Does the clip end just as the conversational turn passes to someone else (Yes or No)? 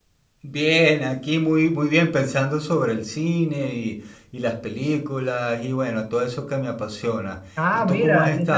Yes